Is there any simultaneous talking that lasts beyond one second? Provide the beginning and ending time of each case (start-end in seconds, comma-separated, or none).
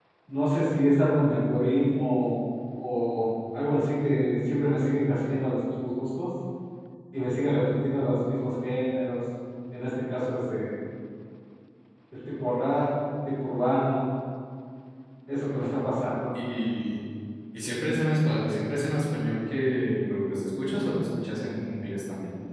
none